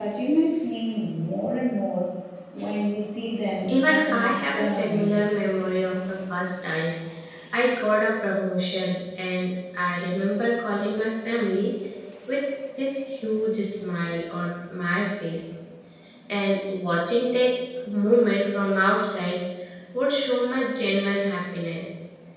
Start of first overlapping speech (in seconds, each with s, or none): 3.7 s